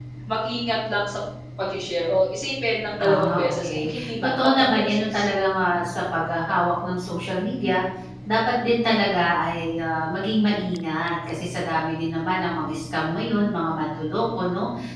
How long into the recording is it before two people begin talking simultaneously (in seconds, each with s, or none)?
3.0 s